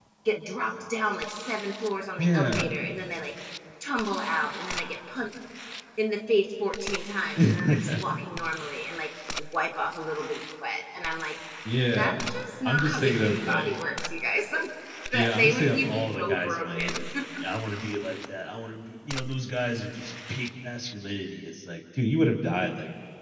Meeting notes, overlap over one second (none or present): present